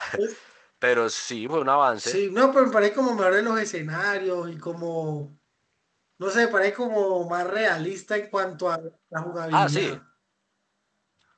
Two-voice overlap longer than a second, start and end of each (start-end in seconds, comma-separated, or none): none